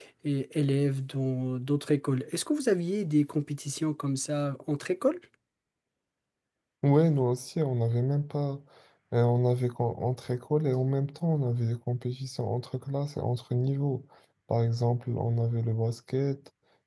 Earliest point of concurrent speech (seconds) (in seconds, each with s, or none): none